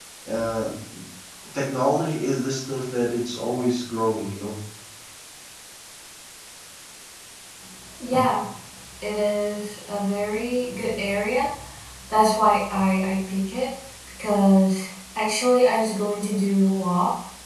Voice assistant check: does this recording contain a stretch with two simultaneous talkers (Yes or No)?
No